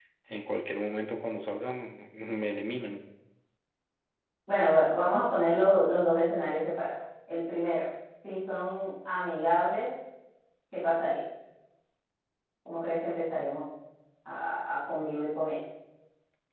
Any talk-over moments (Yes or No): No